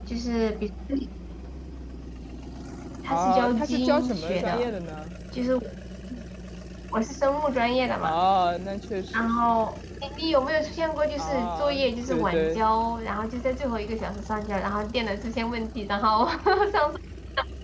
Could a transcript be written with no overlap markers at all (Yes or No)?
No